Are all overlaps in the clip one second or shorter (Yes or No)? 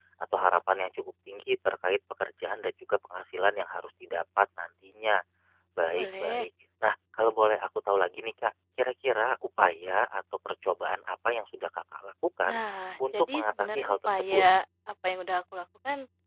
No